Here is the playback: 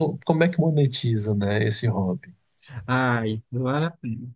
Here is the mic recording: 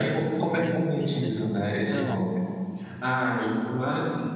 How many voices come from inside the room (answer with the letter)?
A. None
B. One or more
B